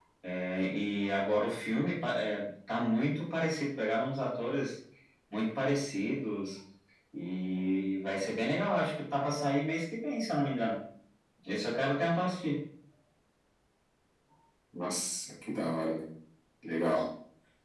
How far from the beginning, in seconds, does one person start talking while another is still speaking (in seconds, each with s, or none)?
none